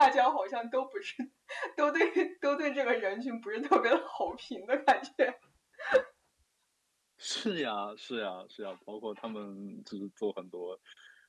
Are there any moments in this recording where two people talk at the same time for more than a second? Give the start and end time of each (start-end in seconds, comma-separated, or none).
none